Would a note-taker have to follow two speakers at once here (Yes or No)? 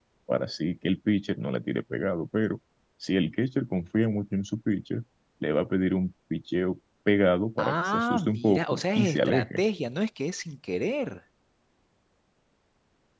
Yes